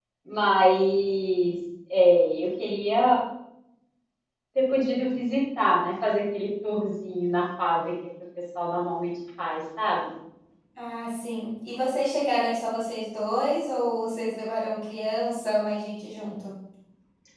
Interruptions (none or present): none